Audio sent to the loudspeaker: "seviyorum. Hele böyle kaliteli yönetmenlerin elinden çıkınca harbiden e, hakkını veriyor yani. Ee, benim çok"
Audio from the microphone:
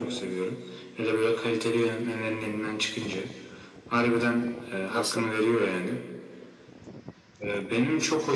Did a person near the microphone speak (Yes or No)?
Yes